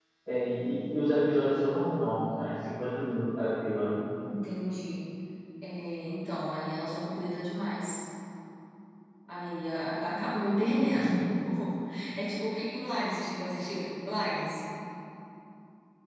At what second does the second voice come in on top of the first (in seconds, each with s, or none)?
none